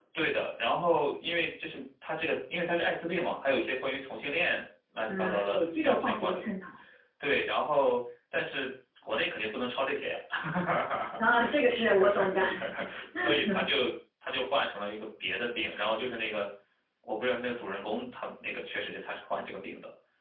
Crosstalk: present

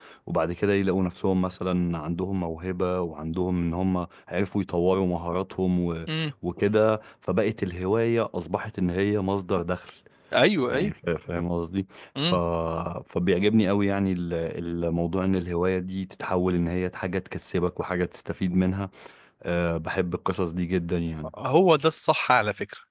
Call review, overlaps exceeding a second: none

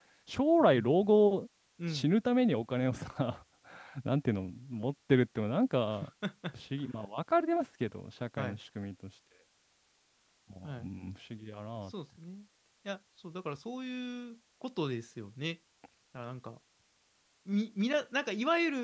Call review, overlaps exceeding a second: none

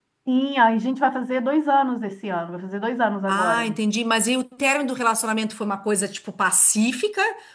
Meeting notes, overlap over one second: none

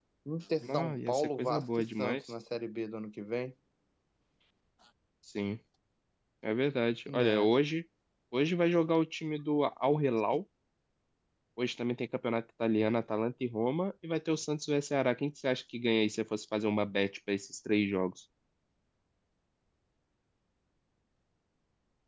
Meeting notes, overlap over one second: present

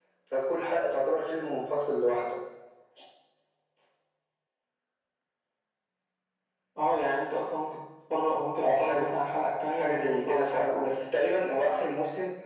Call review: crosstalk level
present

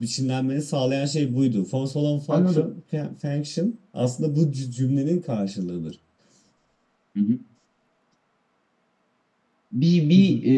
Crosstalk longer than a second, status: none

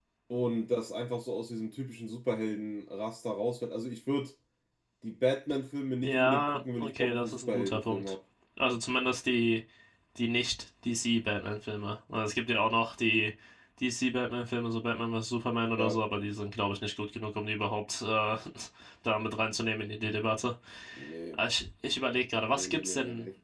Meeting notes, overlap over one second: present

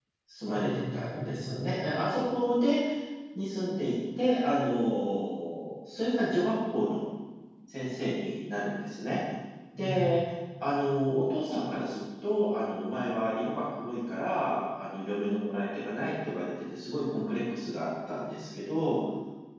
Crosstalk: present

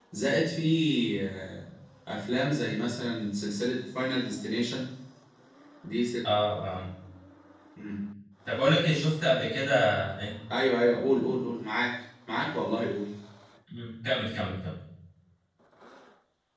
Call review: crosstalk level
none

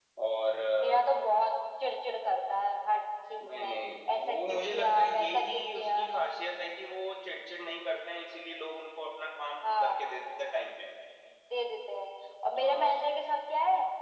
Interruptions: present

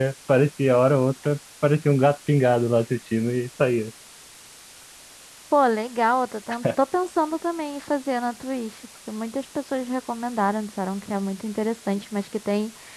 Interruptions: none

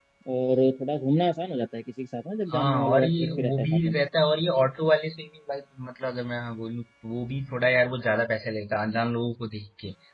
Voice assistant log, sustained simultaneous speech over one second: present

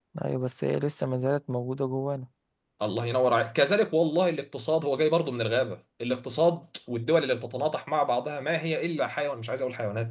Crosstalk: none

